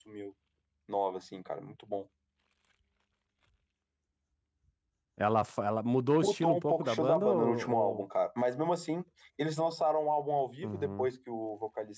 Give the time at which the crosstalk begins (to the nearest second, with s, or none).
6 s